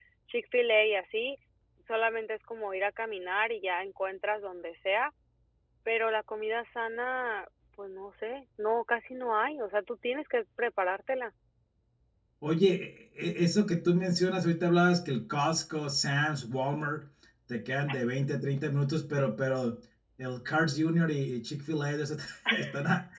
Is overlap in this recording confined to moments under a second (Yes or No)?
Yes